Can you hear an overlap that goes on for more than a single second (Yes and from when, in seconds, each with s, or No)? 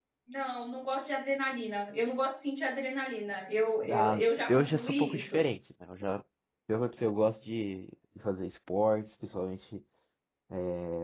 Yes, from 3.8 s